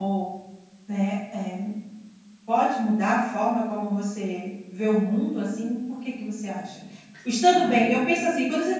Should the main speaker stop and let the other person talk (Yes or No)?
No